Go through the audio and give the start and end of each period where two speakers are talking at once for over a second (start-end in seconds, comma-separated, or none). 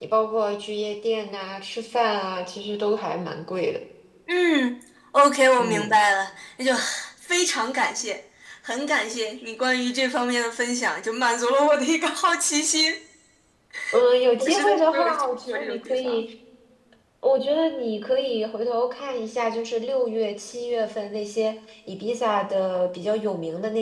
14.4-16.2